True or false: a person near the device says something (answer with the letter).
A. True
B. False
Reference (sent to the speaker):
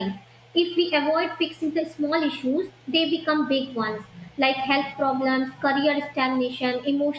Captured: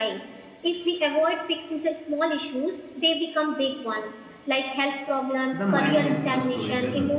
A